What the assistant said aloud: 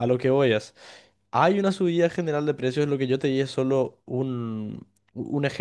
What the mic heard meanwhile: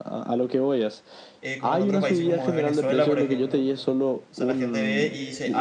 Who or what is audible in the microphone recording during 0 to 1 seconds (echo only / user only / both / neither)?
echo only